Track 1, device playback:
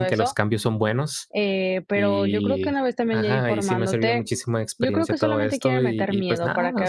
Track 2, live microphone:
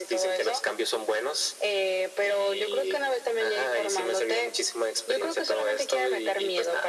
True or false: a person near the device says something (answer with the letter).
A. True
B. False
B